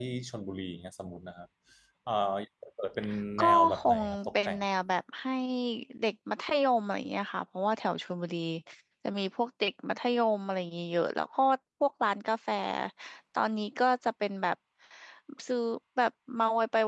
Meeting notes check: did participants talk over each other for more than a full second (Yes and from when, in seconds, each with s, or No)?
Yes, from 3.4 s